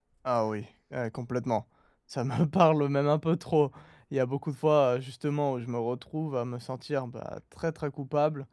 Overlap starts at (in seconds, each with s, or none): none